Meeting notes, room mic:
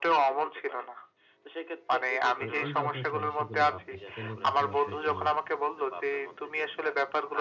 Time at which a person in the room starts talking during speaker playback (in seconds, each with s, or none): 2.5 s